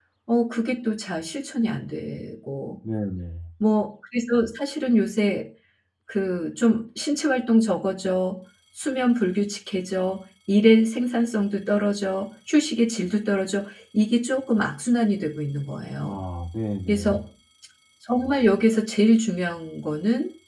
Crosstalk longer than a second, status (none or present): none